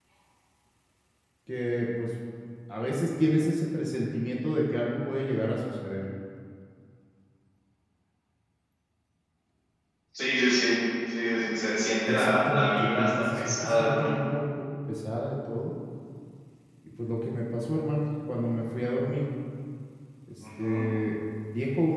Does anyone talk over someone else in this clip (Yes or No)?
Yes